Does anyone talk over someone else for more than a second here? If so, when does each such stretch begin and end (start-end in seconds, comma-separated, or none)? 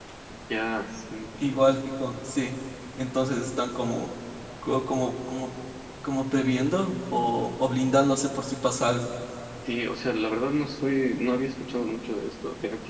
none